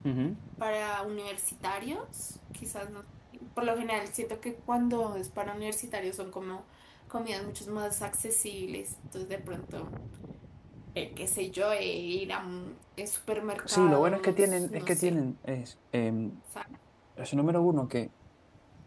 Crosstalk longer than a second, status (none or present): present